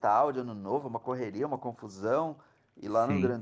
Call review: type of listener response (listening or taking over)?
listening